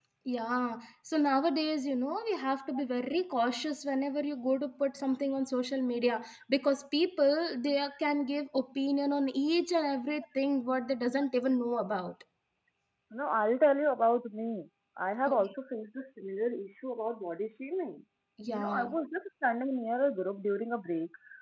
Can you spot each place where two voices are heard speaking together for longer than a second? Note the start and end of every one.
none

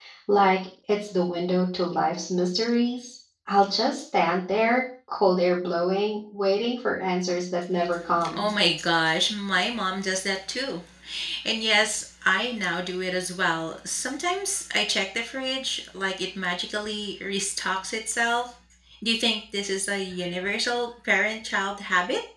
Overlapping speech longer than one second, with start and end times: none

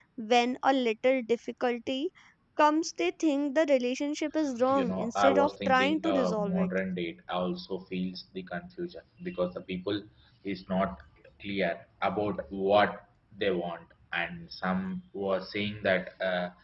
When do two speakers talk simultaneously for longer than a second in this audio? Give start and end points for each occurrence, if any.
4.8-6.7

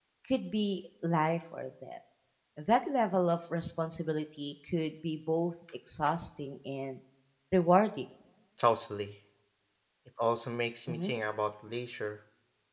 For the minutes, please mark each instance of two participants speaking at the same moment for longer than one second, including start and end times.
none

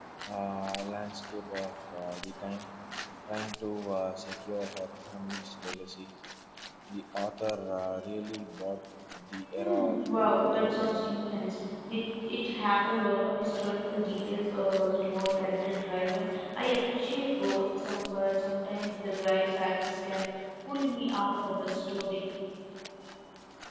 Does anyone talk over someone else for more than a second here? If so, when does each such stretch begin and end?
9.6-11.1

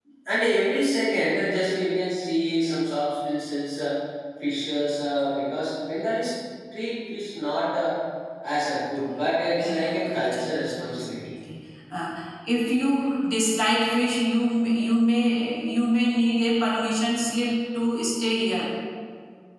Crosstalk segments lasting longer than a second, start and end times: 9.6-11.1

